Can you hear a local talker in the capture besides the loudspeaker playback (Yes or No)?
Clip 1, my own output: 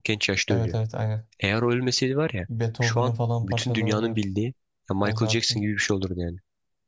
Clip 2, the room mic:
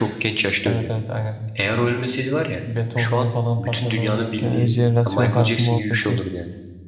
Yes